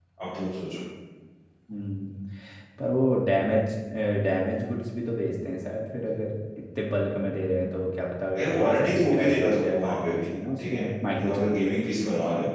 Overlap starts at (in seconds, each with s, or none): 8.3 s